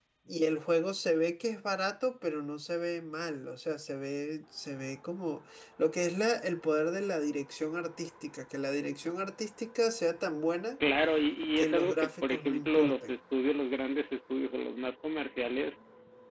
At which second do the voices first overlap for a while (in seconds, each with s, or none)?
11.6 s